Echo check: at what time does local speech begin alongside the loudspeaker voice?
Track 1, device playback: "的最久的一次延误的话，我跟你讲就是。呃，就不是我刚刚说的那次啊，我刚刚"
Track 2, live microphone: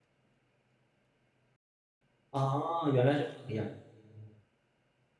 2.3 s

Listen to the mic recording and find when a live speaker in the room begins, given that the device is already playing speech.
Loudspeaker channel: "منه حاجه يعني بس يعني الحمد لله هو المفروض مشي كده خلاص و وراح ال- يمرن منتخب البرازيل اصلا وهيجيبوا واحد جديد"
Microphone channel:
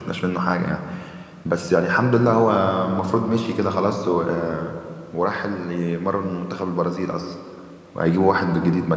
none

